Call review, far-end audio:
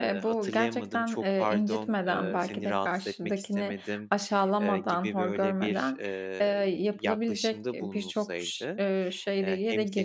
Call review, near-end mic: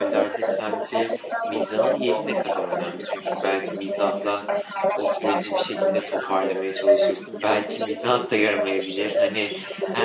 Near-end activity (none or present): present